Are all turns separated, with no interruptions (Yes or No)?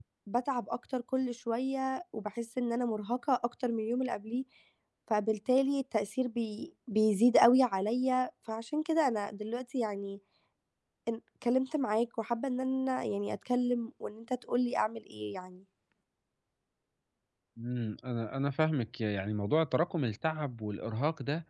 Yes